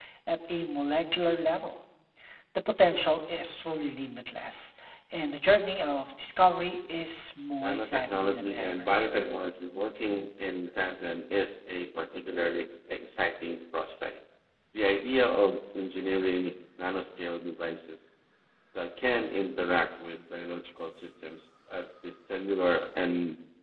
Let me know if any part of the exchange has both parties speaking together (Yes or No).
Yes